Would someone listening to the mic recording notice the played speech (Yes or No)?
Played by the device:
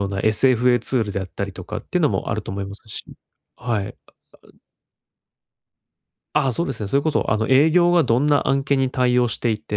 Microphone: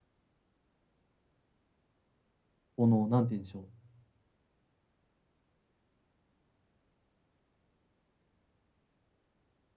No